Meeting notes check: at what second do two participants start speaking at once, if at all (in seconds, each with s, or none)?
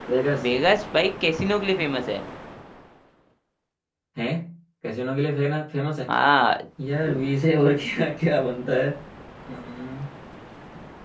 none